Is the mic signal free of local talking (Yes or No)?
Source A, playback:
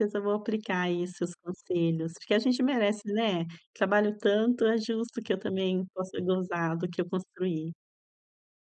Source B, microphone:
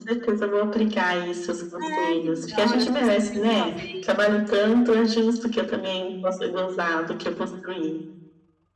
No